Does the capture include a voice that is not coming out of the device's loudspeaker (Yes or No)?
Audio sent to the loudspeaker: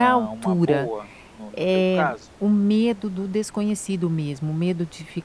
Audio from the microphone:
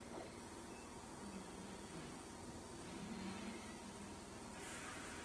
No